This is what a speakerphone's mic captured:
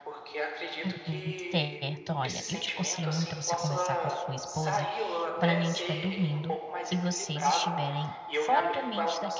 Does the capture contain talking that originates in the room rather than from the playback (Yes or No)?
Yes